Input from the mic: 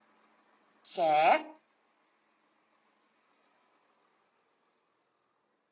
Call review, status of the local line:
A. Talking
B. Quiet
A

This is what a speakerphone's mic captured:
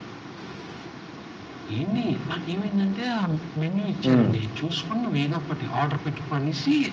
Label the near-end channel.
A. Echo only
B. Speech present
B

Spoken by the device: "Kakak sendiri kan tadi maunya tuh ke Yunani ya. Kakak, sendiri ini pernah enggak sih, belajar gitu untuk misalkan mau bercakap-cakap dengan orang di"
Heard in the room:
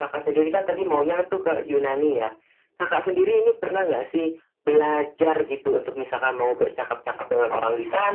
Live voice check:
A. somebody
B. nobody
B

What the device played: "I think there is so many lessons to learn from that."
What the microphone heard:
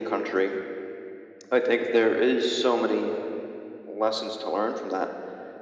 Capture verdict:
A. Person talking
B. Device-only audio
B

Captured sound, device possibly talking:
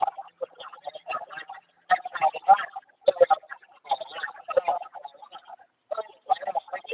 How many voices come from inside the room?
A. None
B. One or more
A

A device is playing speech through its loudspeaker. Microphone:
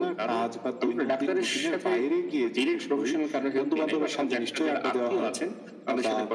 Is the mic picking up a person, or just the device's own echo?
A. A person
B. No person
B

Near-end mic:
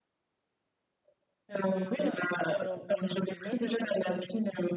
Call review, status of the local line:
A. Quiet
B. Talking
B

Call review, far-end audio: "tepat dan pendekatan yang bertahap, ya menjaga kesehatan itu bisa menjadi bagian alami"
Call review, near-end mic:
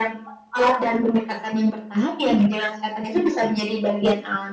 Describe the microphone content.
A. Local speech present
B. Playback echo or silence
B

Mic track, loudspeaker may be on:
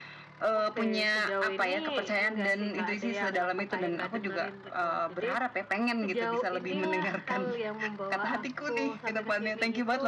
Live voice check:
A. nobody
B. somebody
B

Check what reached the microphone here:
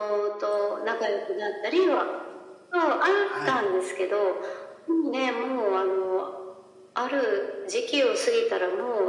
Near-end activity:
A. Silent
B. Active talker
B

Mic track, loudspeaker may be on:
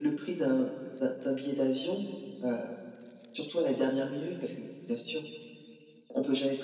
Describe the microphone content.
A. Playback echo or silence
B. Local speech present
A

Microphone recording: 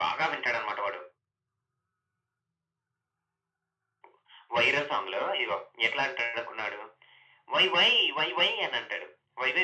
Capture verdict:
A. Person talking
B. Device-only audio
B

